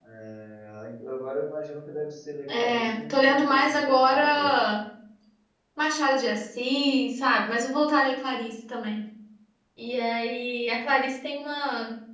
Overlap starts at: 2.5 s

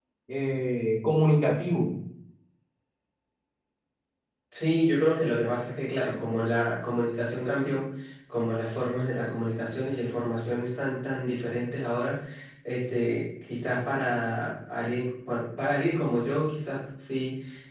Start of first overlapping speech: none

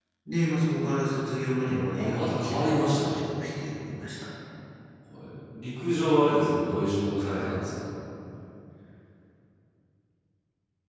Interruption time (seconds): 2.0 s

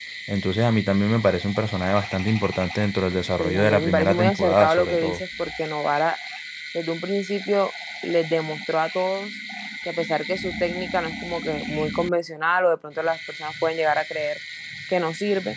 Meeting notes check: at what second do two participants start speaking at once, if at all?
3.4 s

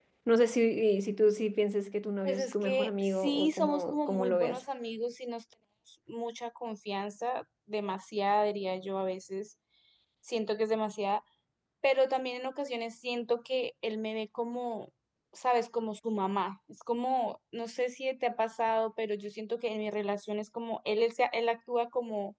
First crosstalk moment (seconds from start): 2.2 s

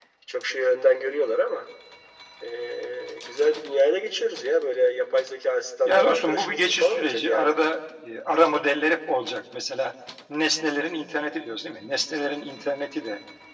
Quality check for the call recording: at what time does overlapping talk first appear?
5.8 s

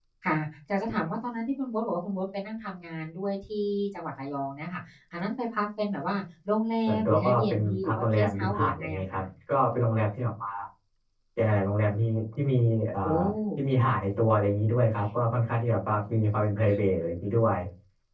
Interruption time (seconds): 6.9 s

